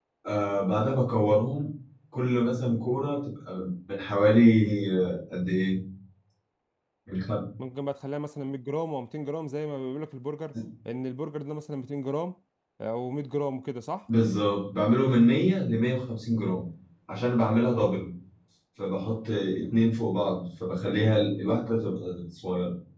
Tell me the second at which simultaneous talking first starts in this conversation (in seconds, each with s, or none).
none